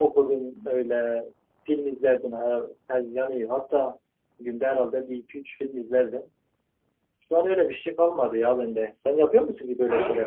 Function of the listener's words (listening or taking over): taking over